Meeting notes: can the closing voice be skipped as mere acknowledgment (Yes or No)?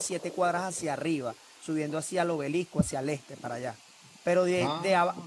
Yes